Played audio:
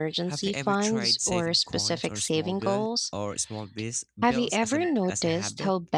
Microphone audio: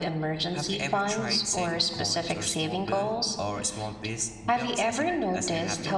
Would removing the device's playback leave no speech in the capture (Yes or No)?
Yes